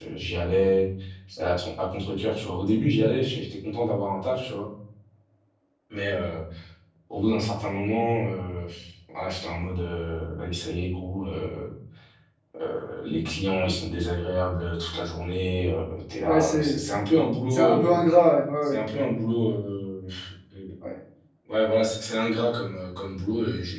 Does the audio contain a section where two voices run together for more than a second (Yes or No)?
No